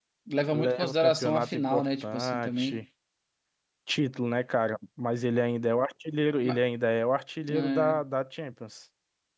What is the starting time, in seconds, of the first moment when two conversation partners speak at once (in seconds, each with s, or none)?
0.5 s